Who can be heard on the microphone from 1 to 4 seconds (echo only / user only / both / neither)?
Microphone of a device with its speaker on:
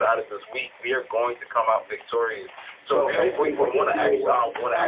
both